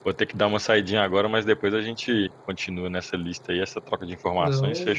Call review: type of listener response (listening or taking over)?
taking over